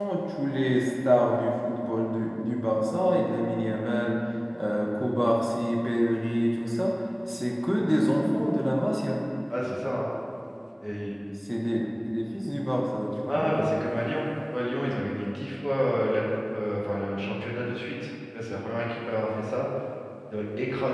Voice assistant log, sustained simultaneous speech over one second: none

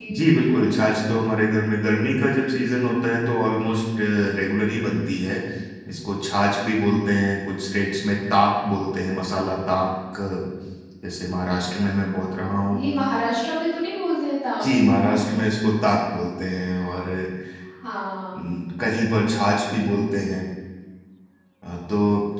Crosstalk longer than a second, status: none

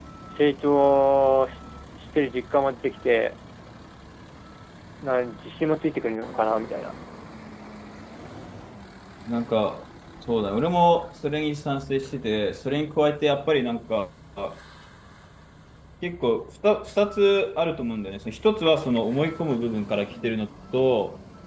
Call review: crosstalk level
none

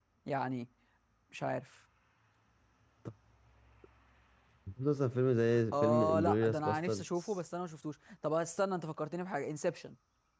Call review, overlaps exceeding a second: present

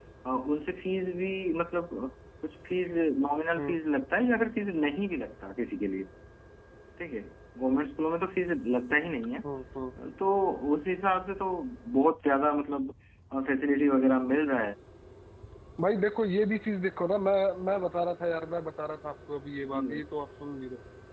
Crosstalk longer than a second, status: none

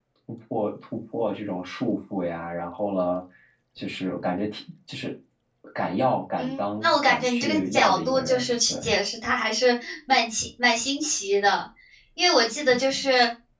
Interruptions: present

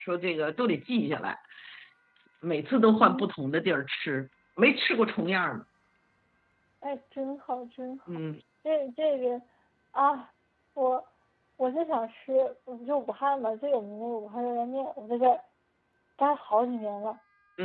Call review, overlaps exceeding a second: none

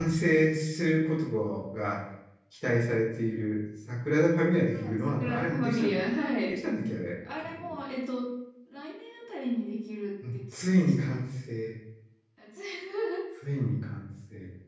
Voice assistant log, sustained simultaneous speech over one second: present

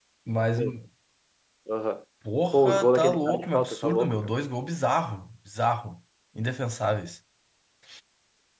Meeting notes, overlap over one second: present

